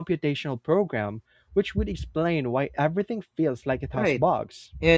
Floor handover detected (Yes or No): Yes